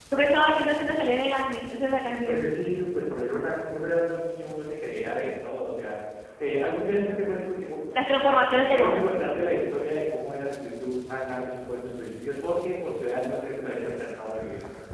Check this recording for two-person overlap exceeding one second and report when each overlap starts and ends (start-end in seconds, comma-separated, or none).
none